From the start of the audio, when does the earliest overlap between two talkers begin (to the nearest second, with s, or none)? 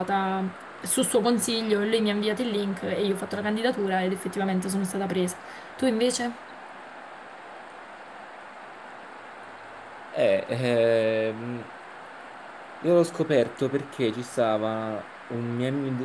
none